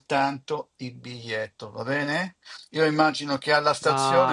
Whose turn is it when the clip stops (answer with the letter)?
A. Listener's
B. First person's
B